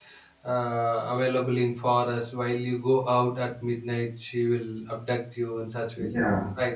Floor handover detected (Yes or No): Yes